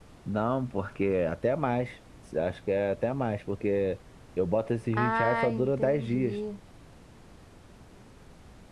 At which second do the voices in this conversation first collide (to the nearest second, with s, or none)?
5 s